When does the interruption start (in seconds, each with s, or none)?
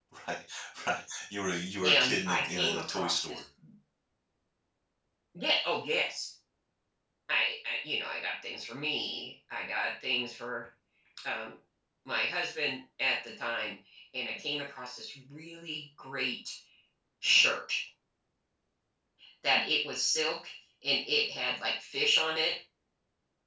1.8 s